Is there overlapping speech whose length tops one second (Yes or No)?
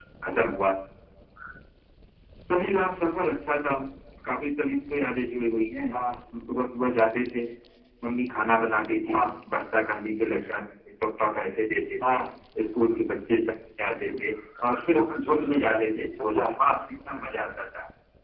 No